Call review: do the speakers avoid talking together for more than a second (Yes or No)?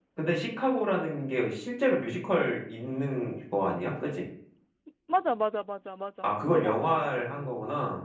No